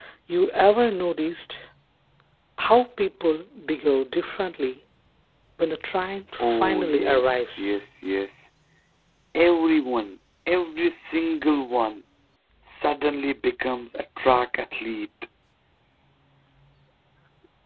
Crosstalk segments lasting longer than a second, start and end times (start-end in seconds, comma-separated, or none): 6.4-7.8